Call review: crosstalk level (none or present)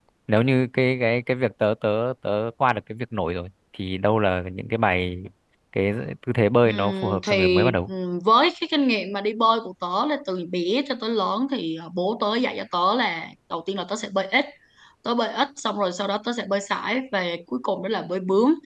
present